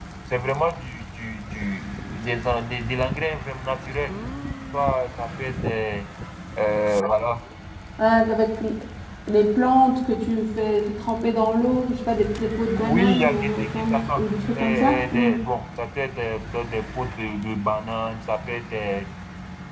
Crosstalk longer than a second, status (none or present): present